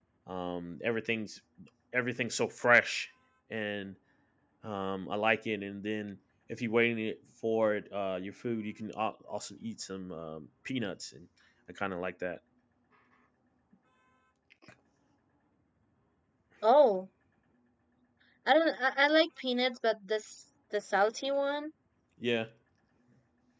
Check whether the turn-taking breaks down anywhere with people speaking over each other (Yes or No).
No